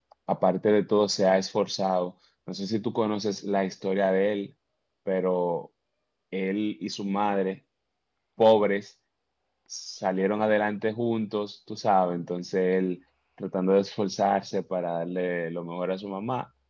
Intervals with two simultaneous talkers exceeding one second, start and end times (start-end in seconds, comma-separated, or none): none